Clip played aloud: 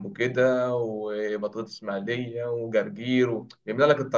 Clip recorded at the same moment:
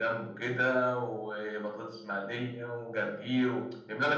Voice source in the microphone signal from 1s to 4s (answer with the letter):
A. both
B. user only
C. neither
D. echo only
D